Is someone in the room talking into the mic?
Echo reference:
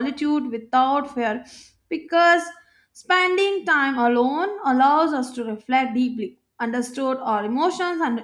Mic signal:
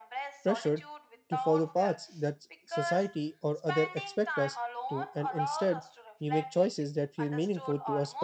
Yes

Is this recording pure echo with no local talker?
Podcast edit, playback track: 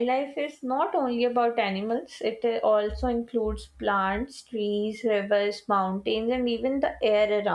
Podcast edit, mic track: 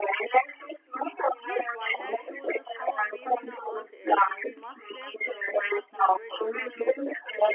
No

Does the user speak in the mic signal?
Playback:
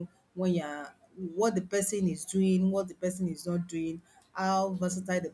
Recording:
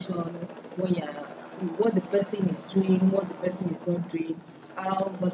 No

